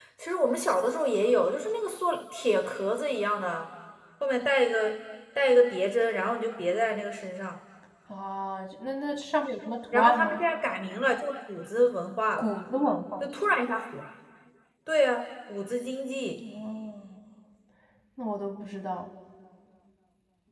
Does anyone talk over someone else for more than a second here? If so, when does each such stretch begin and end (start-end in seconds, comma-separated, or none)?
none